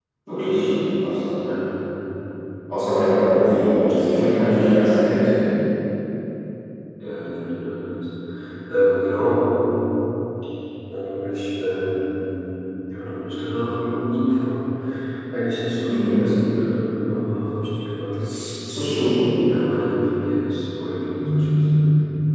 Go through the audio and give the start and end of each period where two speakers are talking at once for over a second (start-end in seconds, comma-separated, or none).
none